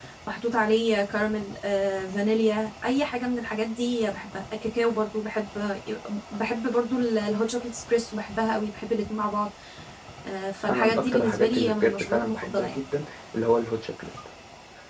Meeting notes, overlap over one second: present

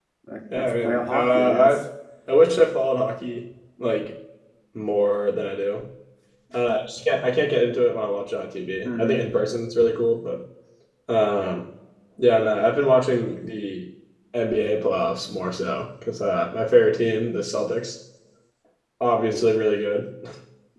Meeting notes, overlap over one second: present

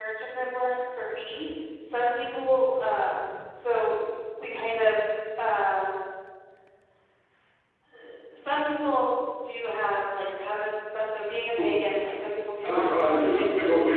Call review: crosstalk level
present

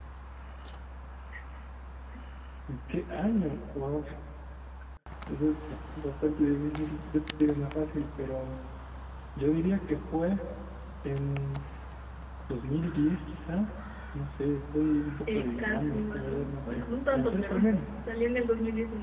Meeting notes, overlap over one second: present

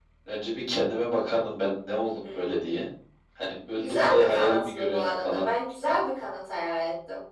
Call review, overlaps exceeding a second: present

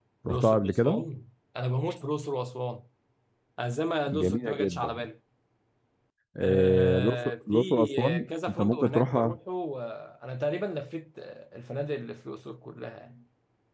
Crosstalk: present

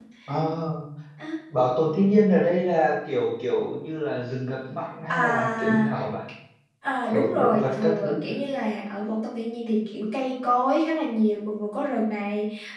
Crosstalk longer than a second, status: present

